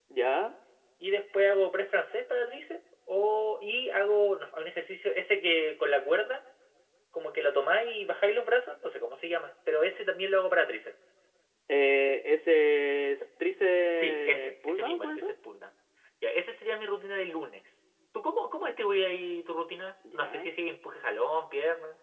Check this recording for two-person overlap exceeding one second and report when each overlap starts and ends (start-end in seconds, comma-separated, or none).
13.9-15.3